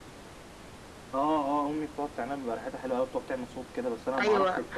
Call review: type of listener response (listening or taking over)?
taking over